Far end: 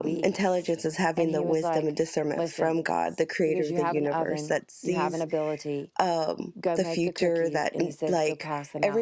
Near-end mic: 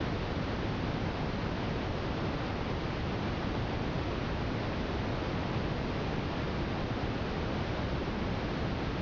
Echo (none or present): none